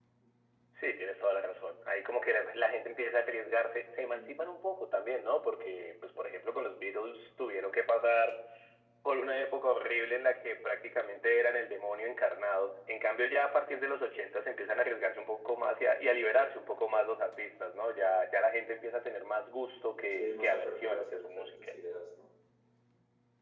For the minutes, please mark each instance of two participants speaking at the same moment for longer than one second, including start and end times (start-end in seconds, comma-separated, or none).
20.1-21.7